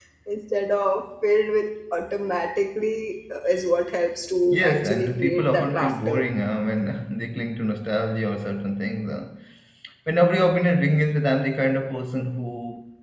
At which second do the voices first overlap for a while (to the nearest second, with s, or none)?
4 s